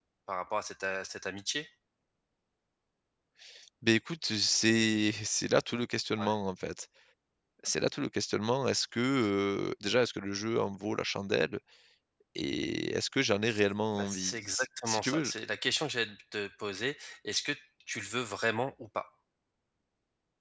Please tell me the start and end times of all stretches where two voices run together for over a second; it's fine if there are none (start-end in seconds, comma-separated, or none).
13.9-15.3